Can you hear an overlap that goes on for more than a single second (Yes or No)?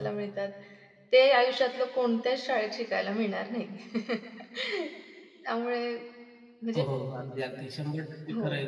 No